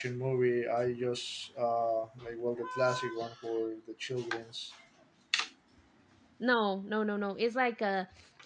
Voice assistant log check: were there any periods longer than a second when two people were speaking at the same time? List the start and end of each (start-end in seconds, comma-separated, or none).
none